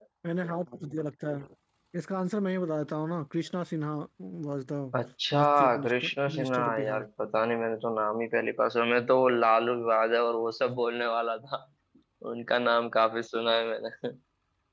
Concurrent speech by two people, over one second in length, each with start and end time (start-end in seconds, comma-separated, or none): 5.3-7.0